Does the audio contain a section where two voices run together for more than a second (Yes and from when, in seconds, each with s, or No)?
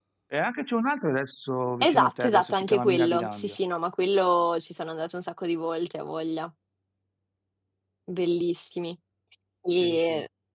Yes, from 1.8 s